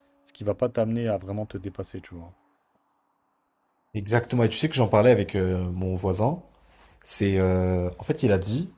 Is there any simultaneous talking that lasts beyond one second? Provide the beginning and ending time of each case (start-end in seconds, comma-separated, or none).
none